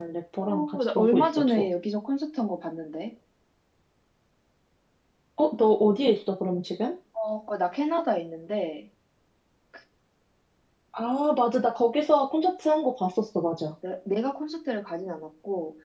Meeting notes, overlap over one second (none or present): present